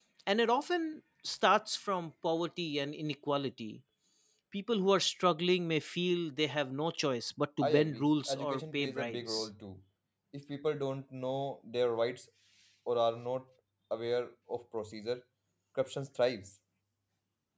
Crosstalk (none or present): present